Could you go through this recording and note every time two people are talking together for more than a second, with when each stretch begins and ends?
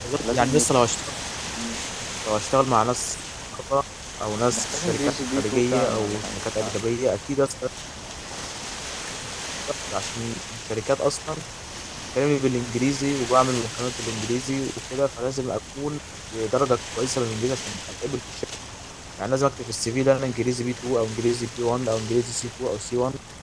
4.6-6.8

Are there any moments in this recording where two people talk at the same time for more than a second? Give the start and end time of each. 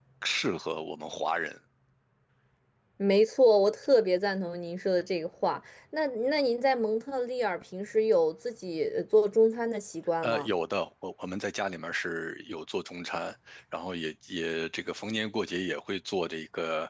none

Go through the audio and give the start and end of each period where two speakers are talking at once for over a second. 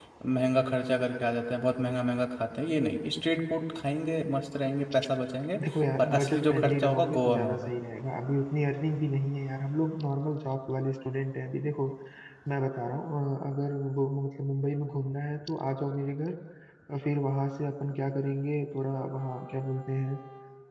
6.0-7.7

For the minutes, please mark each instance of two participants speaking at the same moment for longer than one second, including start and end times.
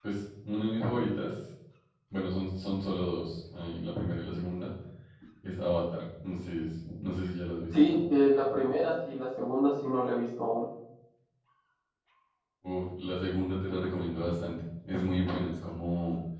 none

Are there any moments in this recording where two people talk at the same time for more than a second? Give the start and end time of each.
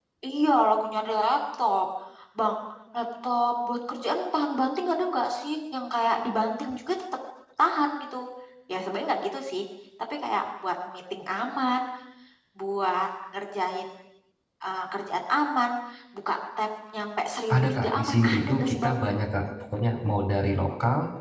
17.5-19.0

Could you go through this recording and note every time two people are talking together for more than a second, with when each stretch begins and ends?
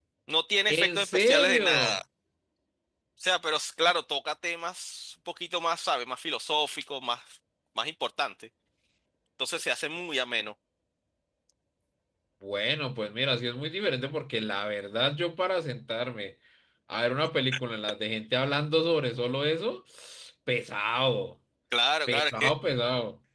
0.7-2.0

